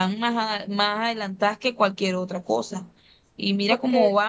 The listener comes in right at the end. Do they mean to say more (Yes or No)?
No